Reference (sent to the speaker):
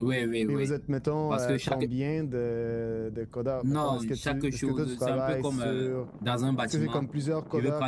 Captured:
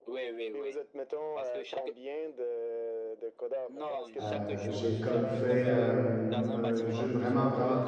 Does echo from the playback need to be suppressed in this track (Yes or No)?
Yes